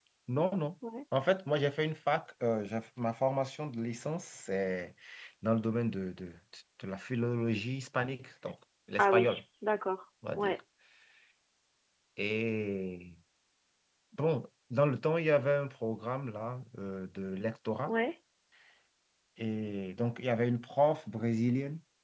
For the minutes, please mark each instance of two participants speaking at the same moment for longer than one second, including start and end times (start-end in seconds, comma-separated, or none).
none